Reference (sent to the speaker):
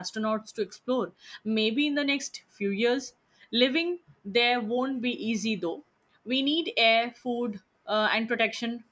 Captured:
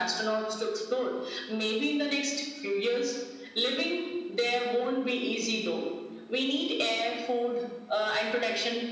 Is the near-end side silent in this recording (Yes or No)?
Yes